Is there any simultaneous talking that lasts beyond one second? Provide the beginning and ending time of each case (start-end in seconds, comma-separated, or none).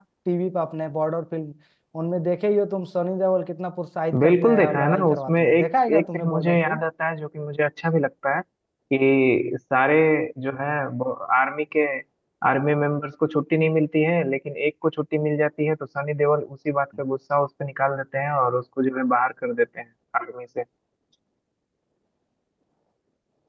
4.2-6.8